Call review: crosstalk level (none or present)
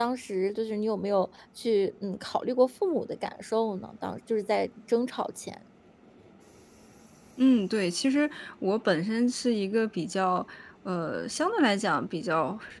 none